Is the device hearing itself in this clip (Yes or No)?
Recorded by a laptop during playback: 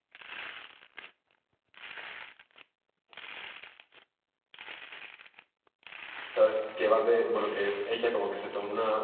No